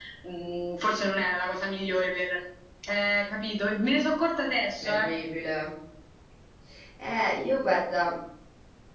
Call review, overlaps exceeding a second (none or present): none